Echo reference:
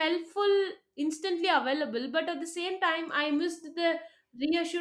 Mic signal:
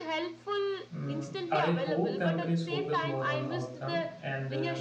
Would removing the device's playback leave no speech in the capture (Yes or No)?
No